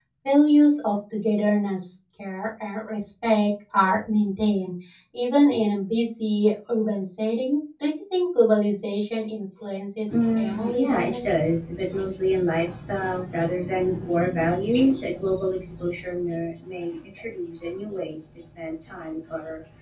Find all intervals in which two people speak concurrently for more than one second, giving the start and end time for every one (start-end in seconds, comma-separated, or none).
10.1-11.3